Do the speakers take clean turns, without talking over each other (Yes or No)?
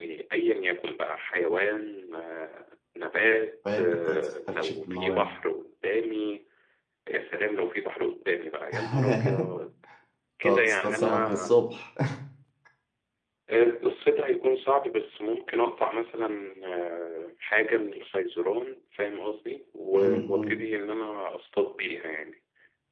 No